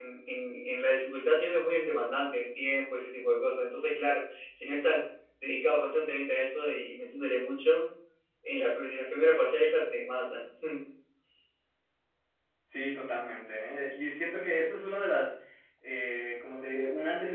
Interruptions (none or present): none